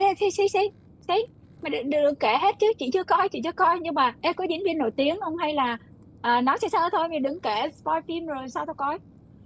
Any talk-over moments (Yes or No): No